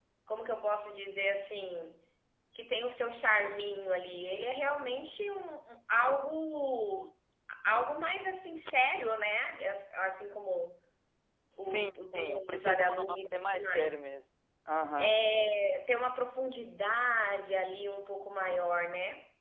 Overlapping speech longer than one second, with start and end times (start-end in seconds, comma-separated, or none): 11.6-13.9